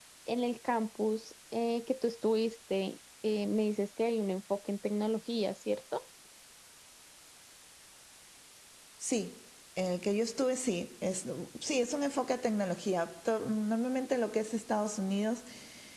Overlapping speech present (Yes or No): No